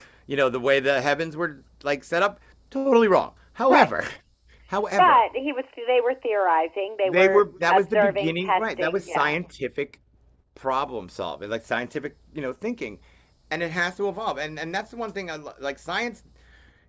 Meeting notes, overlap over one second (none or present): present